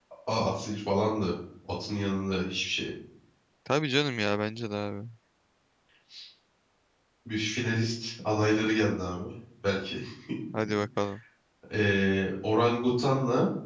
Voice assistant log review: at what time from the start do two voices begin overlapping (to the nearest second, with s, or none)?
none